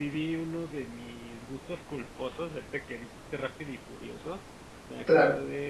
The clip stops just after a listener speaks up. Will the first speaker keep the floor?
Yes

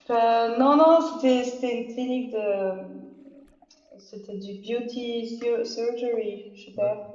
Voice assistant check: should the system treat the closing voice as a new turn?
No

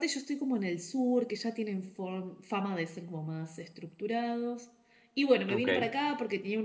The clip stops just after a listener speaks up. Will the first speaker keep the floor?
Yes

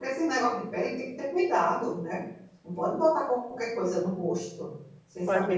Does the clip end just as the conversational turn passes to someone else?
Yes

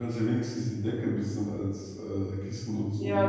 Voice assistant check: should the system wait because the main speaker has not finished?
No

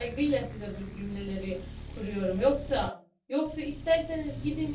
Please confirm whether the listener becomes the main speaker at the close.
No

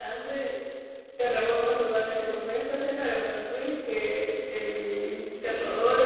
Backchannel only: Yes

